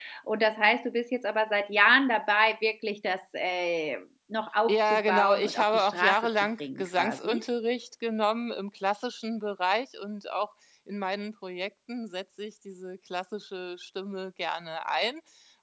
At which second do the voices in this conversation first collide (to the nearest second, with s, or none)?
5 s